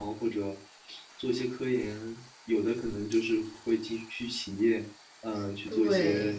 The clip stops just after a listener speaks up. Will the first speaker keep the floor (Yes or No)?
Yes